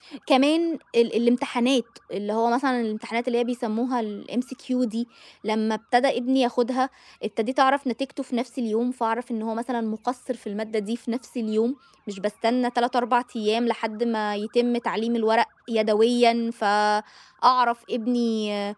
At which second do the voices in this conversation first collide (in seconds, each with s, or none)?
none